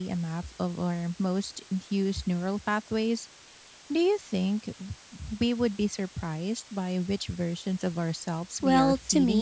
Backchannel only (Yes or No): No